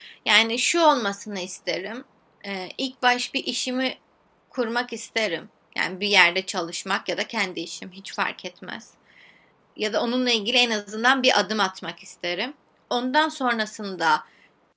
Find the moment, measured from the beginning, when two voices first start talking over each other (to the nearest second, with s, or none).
none